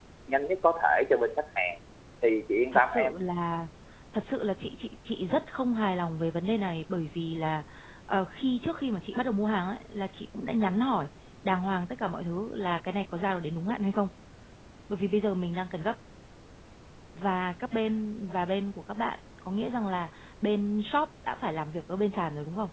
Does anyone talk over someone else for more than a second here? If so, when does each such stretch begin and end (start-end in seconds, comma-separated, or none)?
none